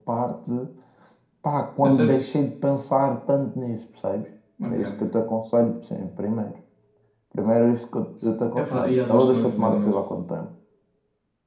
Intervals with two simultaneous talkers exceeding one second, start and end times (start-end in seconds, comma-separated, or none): 8.6-9.9